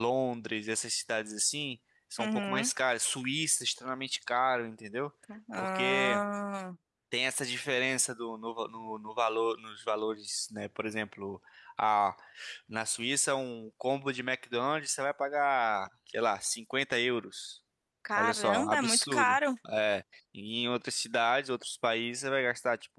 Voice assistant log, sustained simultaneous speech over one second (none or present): present